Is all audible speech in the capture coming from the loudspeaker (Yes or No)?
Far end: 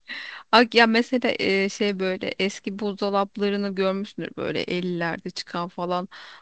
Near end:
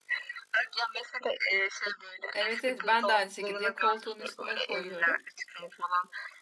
No